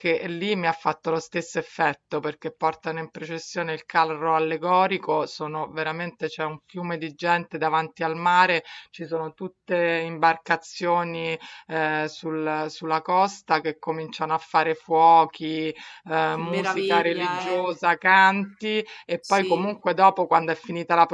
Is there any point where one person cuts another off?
Yes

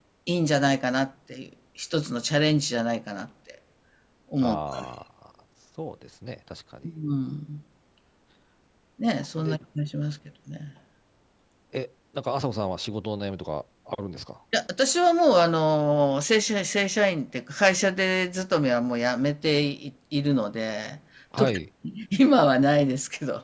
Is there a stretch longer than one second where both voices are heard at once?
No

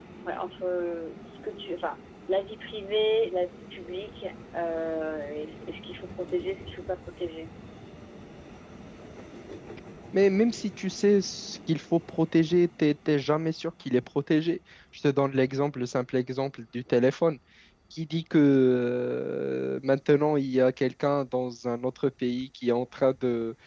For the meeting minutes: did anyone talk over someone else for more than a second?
No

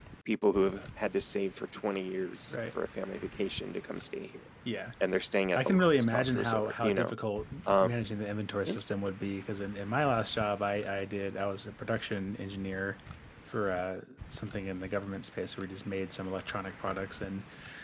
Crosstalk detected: Yes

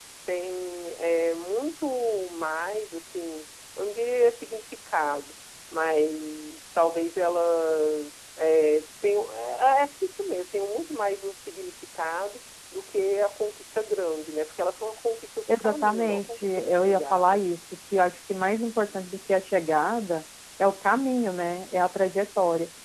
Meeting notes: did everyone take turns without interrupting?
No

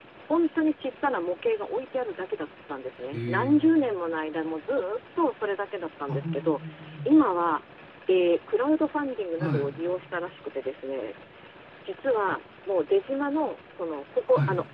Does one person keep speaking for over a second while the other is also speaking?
No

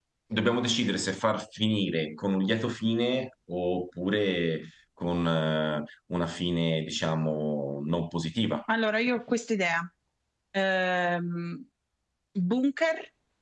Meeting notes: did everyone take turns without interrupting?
Yes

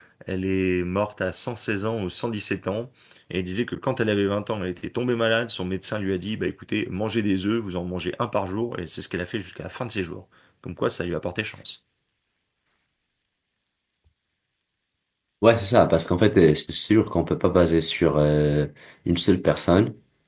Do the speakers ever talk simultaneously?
No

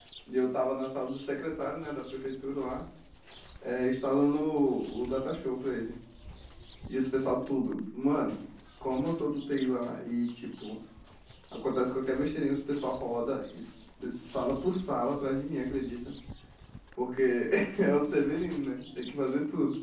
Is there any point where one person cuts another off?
No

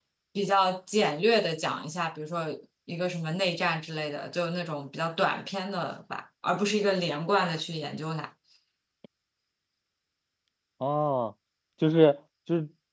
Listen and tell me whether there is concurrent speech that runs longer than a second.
No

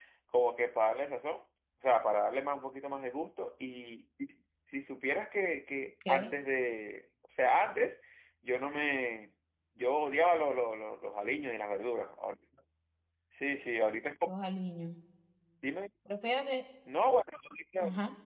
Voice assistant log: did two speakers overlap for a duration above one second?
No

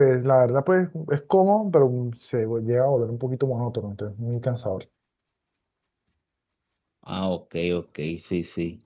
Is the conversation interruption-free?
Yes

